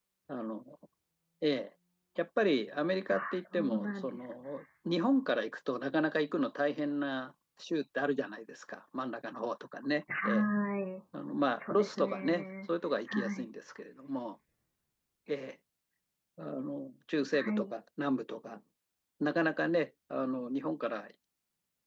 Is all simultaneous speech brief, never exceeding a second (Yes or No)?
No